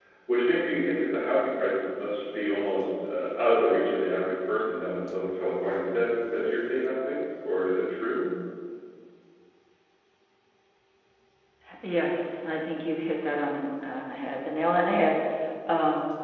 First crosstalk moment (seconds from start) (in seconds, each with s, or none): none